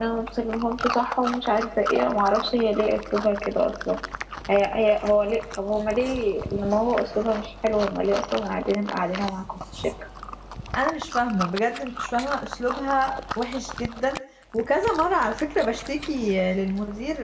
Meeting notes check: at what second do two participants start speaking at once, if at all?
none

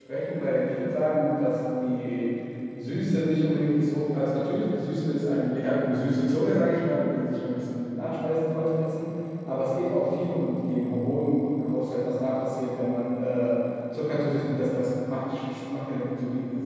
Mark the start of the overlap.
none

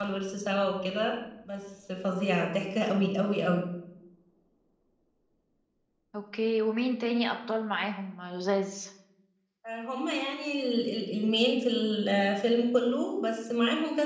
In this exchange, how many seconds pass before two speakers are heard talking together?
none

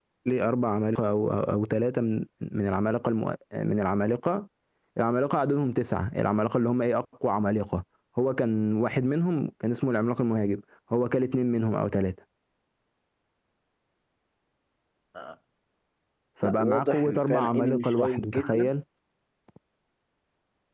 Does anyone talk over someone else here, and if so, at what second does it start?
16.4 s

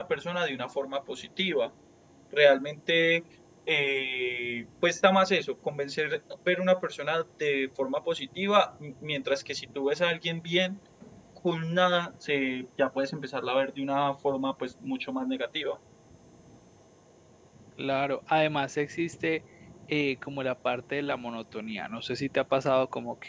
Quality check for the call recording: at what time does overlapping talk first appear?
none

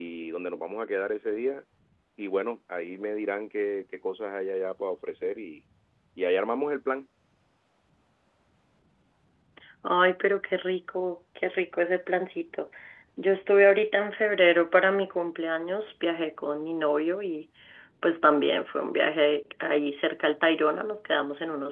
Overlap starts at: none

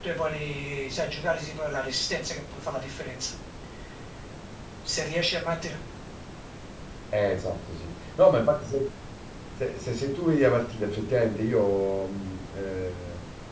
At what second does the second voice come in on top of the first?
none

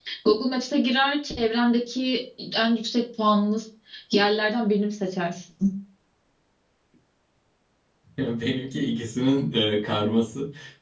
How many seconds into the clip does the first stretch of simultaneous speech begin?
none

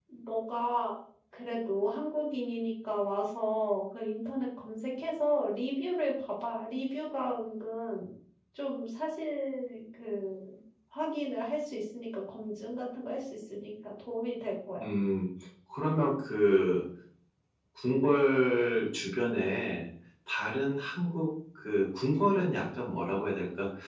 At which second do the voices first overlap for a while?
none

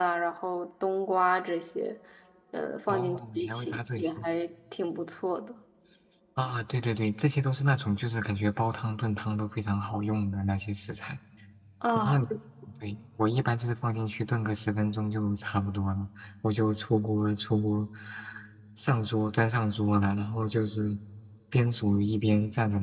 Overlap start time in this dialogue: 2.9 s

